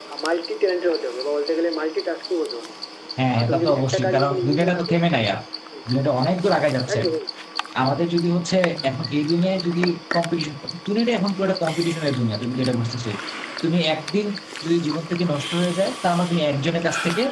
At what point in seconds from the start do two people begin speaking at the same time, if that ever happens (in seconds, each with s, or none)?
3.4 s